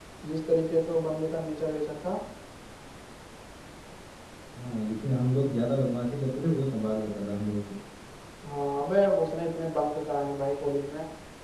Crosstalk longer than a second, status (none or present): none